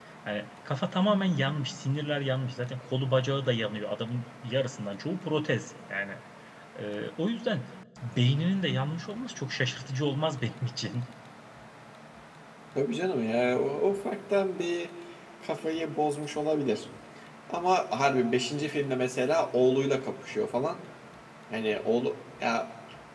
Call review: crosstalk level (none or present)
none